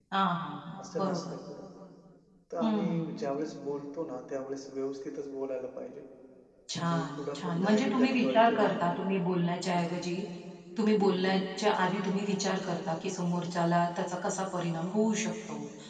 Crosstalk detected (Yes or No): Yes